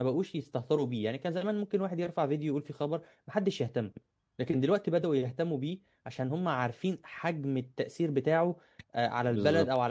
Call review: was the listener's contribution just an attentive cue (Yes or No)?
No